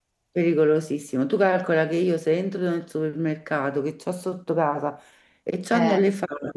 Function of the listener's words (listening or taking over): listening